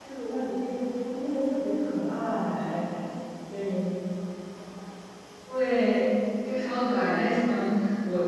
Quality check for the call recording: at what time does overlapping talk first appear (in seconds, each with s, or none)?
none